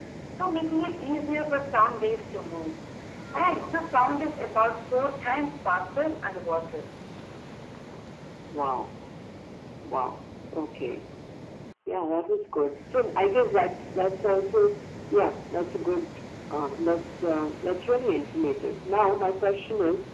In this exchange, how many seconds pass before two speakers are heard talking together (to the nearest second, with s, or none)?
none